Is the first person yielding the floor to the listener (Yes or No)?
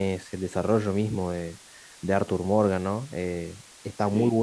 No